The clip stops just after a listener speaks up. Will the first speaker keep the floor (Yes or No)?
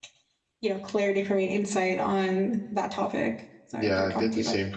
No